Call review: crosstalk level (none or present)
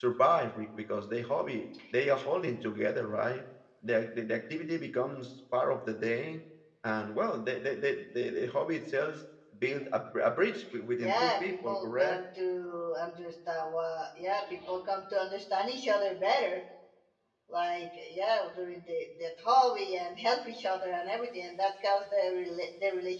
present